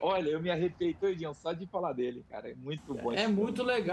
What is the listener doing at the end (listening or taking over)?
taking over